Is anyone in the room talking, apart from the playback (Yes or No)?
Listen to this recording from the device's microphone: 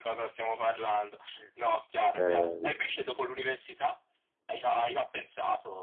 Yes